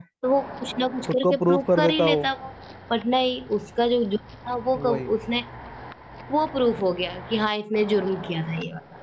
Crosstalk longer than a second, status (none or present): present